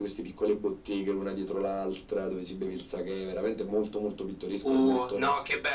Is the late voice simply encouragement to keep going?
No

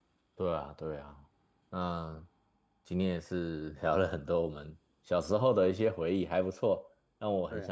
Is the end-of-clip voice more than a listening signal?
No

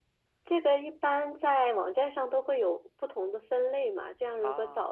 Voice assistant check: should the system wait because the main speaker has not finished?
Yes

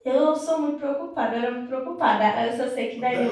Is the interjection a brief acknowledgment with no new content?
Yes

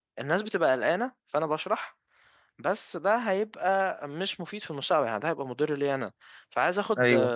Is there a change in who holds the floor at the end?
No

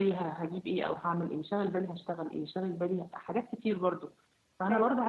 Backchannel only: Yes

